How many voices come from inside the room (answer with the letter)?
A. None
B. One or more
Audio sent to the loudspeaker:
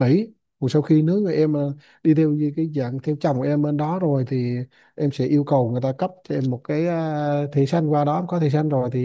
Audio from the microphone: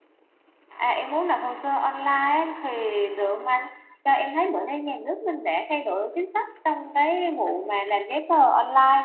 B